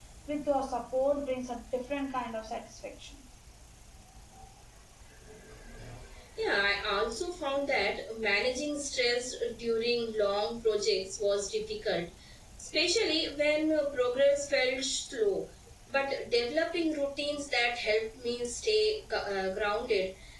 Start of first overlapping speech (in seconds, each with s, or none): none